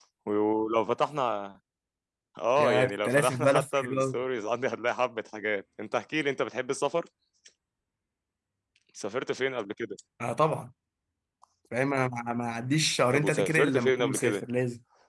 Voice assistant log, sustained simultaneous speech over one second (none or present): present